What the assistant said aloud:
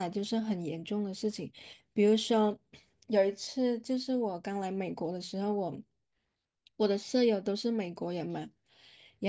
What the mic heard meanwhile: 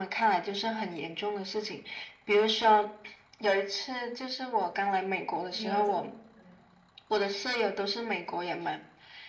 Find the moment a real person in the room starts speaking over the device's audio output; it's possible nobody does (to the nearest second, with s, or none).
6 s